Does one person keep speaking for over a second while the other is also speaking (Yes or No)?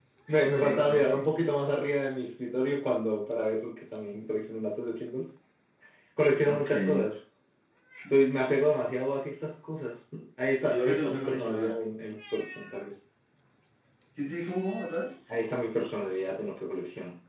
Yes